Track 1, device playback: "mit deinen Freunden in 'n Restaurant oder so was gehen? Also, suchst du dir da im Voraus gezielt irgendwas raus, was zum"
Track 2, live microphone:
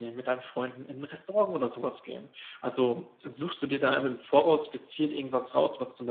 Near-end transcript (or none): none